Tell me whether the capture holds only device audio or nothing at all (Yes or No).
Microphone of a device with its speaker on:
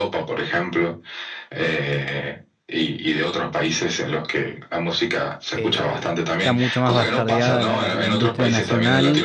No